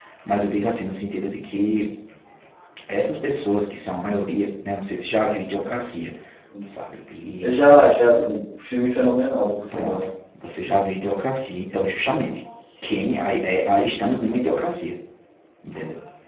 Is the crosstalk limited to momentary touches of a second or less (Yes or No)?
Yes